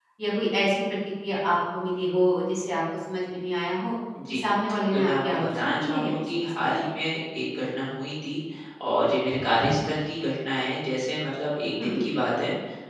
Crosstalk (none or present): present